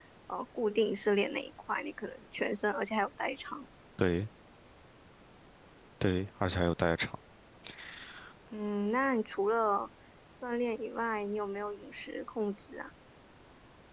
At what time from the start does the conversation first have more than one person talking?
none

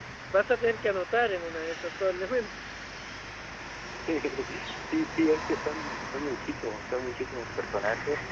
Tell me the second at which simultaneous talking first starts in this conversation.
none

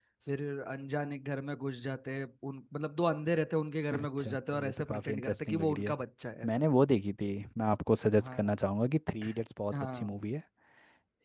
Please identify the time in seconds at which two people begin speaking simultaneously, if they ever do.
3.9 s

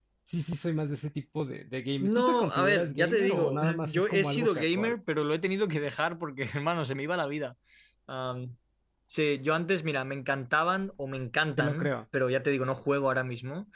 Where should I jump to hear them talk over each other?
2.0 s

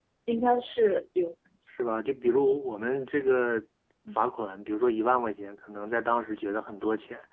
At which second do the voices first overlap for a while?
none

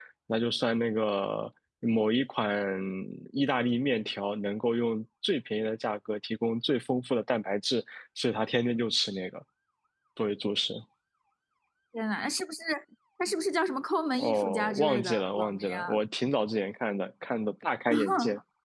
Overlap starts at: 14.1 s

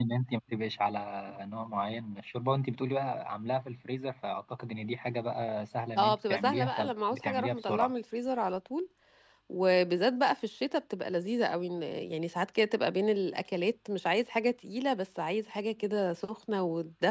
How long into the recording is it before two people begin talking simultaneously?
6.0 s

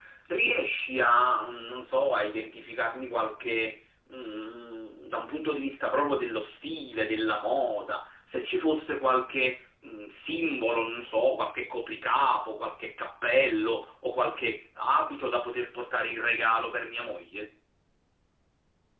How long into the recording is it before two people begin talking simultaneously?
none

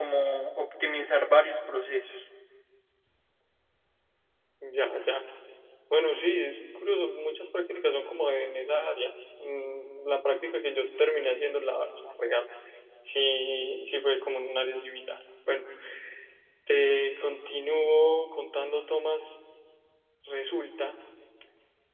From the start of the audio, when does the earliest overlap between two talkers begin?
none

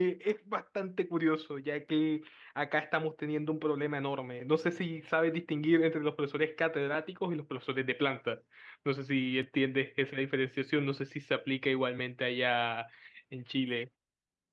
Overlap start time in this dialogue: none

